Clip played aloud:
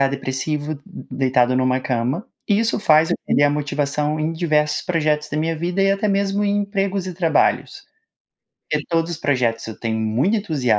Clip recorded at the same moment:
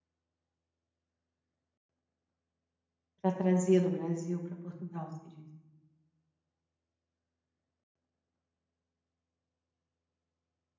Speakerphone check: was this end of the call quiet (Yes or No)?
No